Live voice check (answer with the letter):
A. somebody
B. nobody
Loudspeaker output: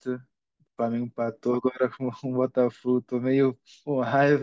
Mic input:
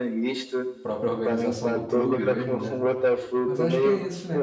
A